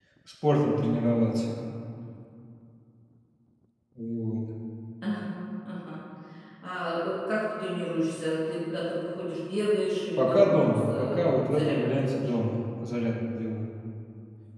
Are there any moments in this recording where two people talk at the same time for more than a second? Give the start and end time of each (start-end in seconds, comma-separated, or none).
10.2-12.2